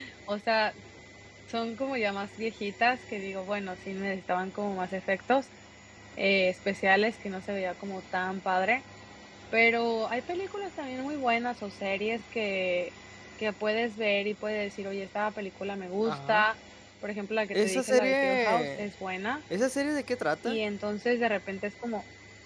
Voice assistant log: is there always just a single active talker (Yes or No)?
No